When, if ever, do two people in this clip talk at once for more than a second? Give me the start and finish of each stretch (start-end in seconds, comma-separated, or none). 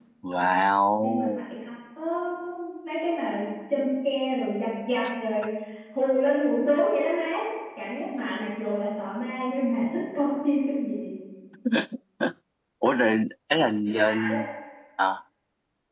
none